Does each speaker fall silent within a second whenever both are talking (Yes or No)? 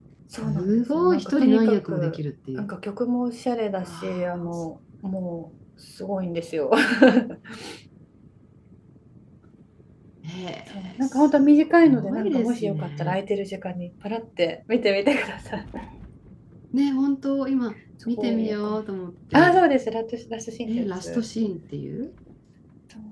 No